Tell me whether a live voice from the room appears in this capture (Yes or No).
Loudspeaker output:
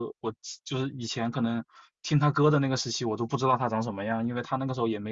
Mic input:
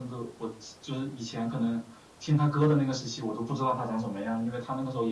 No